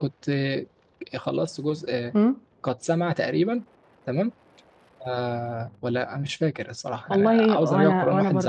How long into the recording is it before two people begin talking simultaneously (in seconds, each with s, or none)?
7.1 s